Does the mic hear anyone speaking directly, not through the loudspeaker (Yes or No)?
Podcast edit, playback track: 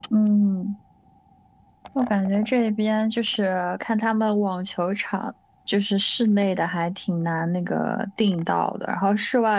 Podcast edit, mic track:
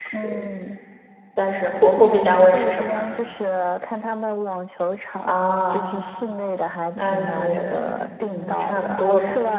Yes